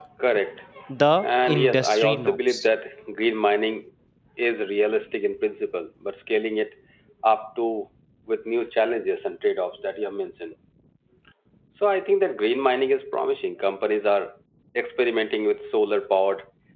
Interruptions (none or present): present